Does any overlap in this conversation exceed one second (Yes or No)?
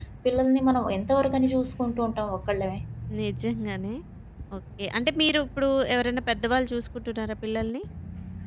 No